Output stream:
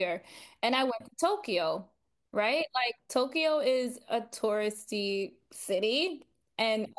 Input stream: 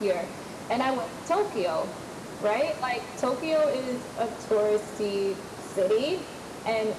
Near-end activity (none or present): none